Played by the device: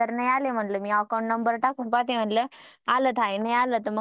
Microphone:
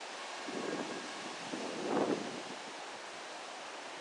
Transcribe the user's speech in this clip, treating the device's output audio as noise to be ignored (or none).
none